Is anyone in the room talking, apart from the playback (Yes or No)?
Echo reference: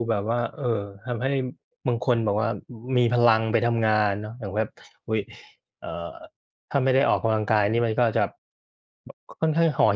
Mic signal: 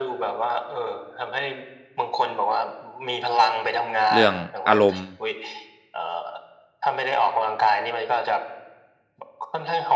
Yes